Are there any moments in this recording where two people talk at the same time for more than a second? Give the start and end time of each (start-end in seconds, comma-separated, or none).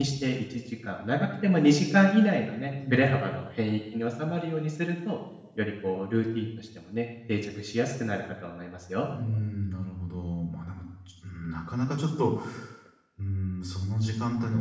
none